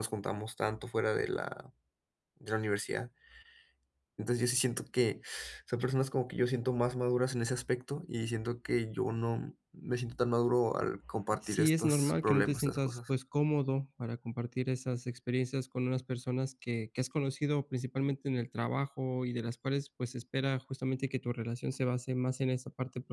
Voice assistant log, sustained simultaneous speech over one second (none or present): present